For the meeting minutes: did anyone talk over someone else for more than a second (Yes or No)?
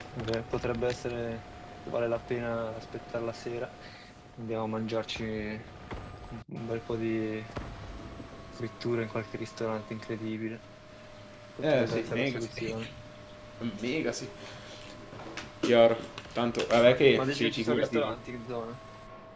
Yes